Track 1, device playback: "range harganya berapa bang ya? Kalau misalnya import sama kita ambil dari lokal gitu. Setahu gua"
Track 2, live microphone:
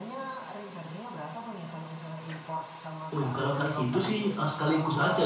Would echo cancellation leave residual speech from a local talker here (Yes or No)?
Yes